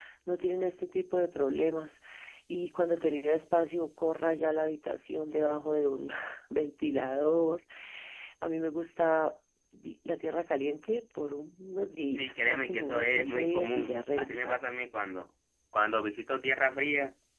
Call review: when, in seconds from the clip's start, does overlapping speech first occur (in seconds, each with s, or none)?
12.1 s